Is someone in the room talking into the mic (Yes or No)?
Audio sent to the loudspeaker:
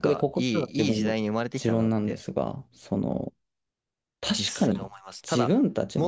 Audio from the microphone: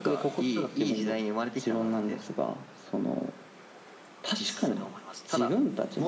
No